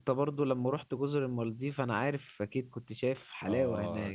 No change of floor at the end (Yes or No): No